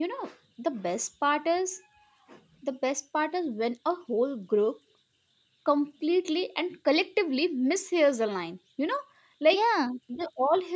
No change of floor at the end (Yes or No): Yes